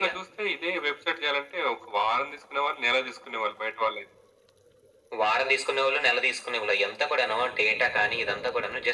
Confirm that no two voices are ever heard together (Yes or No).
Yes